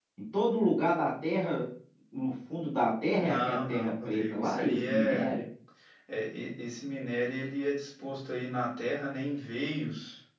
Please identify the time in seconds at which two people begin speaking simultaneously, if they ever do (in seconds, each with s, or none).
3.2 s